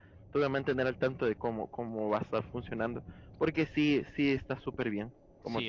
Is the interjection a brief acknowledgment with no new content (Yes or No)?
No